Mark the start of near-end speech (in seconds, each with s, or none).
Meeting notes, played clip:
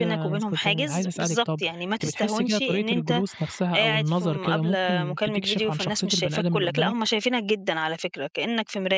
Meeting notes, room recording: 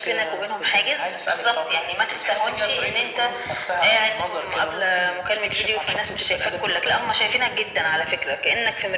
none